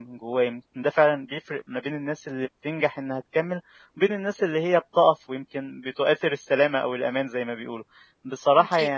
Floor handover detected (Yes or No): No